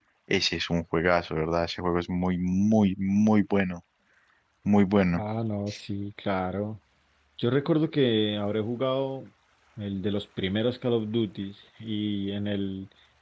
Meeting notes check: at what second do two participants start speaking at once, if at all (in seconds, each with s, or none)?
none